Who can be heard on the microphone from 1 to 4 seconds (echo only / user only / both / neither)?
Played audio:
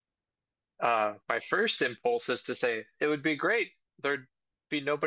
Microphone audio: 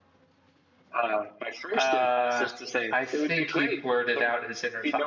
both